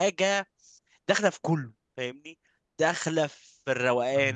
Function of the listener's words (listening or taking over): listening